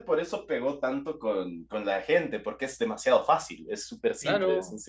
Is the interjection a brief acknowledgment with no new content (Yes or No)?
No